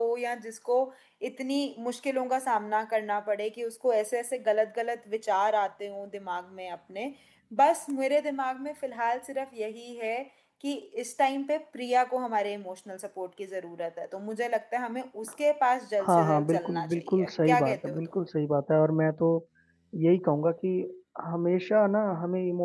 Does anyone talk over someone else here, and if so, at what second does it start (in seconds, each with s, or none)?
16.0 s